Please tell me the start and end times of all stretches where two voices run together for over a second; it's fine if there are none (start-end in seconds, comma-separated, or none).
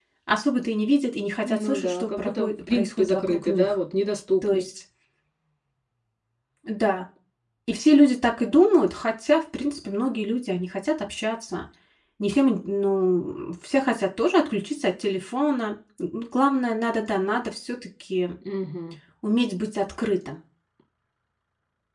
1.4-3.8